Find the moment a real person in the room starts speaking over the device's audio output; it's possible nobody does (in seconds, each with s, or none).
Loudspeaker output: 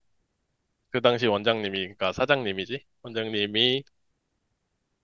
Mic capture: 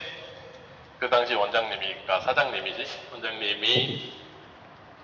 3.6 s